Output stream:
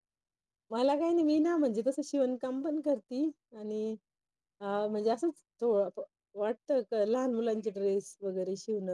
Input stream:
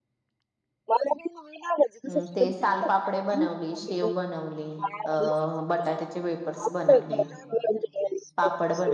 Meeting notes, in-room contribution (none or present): present